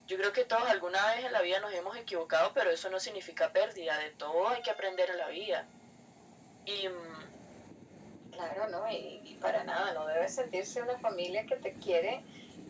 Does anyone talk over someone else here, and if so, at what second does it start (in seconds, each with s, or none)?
none